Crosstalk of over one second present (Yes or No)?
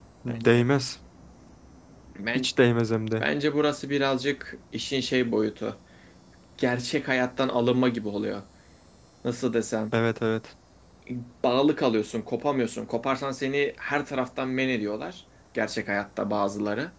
No